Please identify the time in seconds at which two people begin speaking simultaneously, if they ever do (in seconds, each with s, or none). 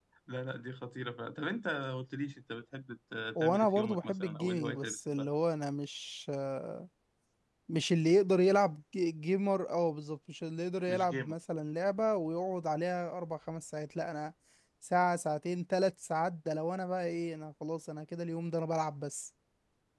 3.4 s